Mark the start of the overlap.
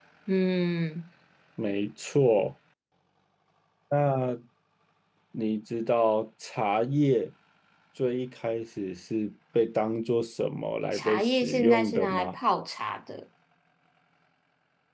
11 s

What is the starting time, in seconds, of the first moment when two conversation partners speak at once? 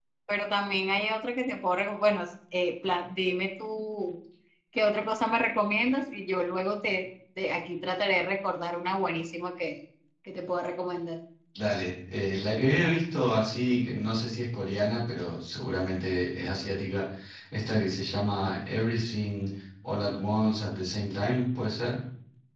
none

